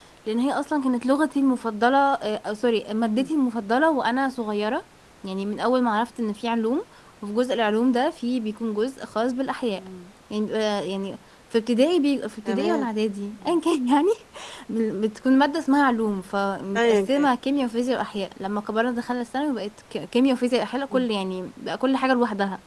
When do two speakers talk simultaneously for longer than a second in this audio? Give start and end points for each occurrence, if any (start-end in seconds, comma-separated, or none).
none